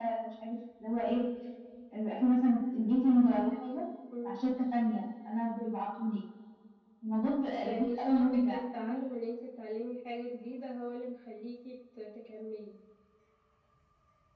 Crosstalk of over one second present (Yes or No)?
Yes